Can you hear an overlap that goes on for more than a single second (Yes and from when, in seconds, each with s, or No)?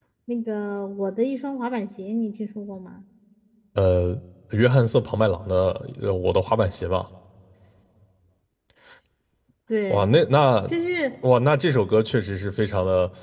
No